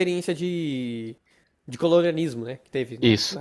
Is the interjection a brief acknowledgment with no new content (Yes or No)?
No